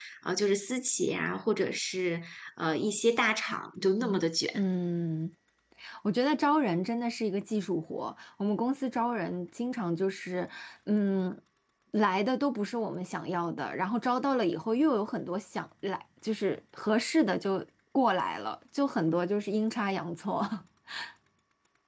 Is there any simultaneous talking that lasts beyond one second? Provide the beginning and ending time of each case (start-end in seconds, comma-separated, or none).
none